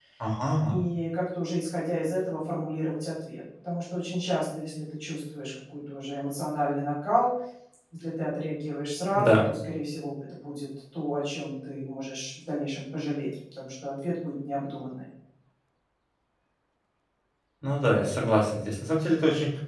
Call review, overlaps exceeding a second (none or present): none